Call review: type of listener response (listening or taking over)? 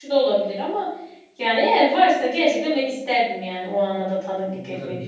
taking over